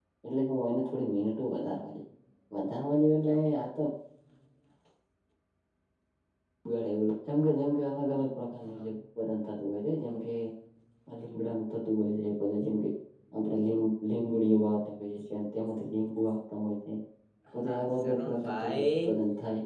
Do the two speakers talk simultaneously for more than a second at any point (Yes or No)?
Yes